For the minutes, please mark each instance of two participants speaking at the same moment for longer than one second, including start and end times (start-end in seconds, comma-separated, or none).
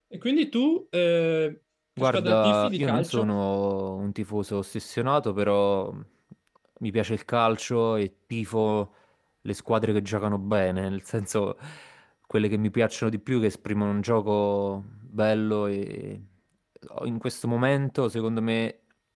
2.0-3.3